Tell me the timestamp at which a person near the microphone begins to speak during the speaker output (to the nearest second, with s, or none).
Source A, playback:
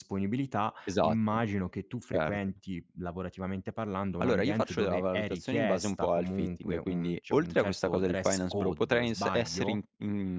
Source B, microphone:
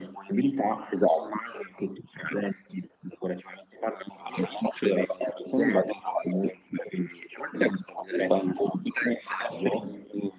none